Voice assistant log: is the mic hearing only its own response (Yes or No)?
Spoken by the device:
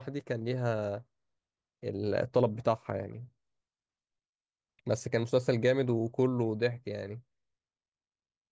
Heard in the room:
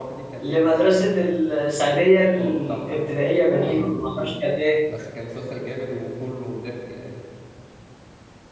No